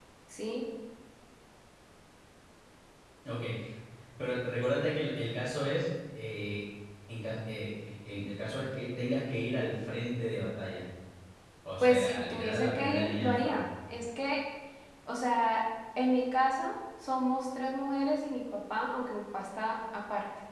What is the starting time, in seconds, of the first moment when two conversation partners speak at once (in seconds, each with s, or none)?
11.8 s